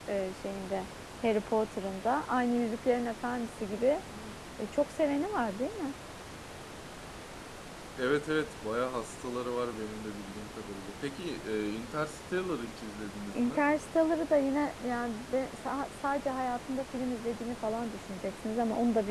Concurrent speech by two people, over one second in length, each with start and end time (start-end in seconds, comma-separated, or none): none